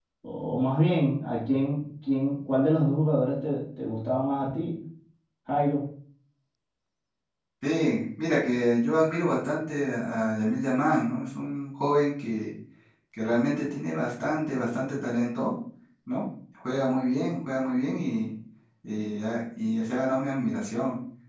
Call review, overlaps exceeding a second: none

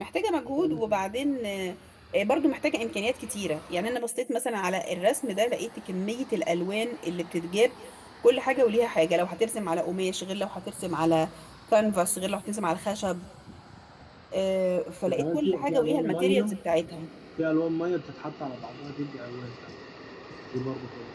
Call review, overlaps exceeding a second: present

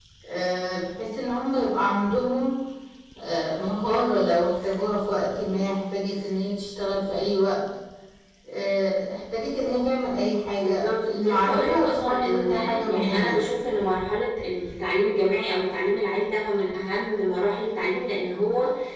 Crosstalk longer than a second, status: present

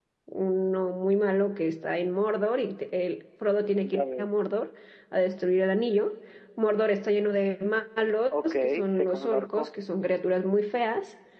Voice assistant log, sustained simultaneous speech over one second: present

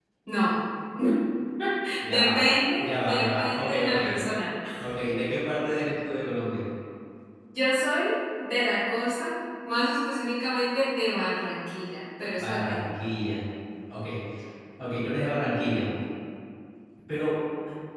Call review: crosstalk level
present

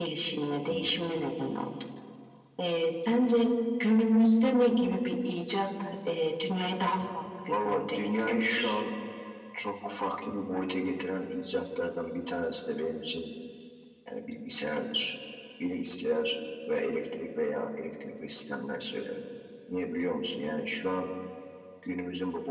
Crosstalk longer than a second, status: present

